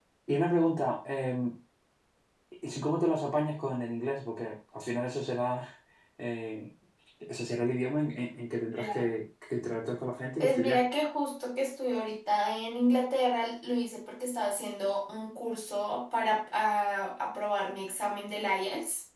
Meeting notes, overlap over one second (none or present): none